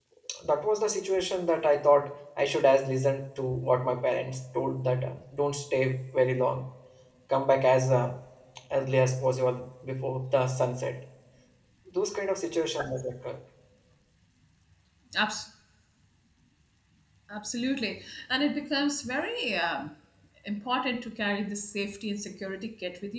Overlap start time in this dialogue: none

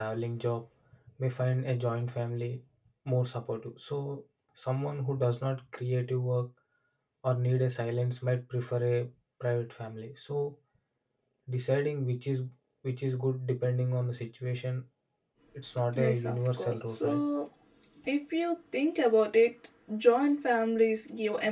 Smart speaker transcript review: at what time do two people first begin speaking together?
16.0 s

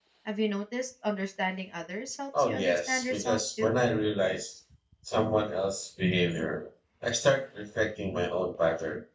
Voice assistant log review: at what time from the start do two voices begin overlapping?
2.3 s

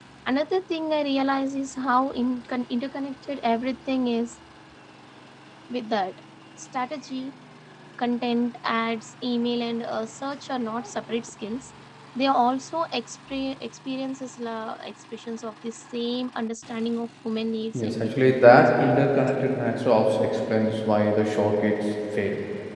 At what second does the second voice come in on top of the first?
17.7 s

